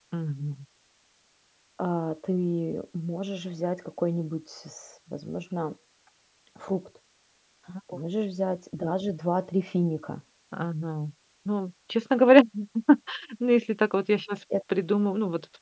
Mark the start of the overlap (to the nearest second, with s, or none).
none